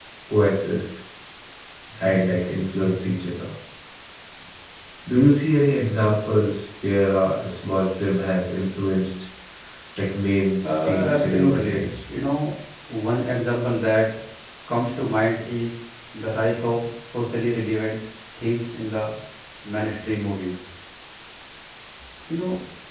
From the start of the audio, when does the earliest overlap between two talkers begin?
10.6 s

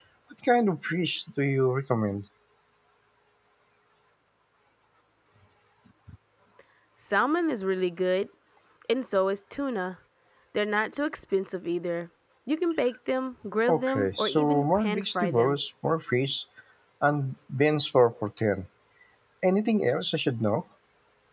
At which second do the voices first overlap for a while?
13.7 s

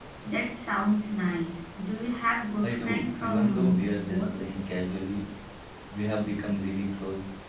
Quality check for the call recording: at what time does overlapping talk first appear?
2.6 s

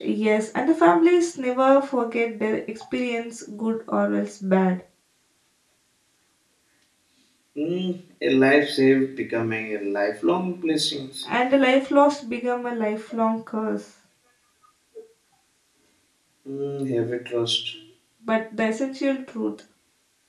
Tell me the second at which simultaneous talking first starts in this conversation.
none

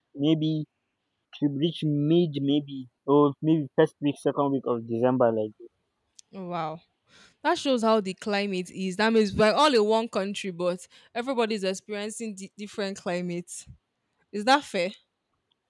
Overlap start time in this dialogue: none

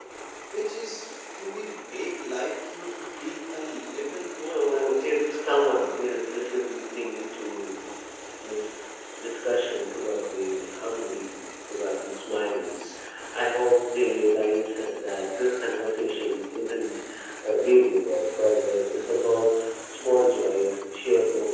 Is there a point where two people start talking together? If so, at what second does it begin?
4.4 s

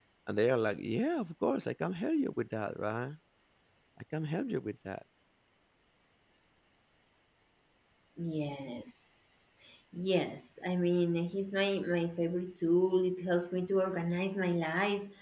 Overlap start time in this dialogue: none

